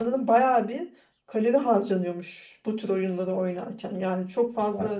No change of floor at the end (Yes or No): Yes